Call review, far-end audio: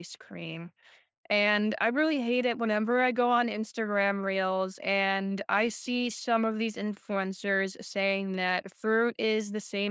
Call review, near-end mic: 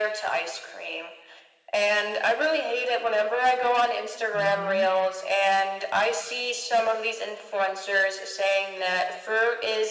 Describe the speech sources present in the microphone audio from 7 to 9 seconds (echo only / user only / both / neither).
echo only